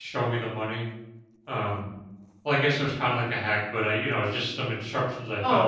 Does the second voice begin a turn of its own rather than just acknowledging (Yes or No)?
Yes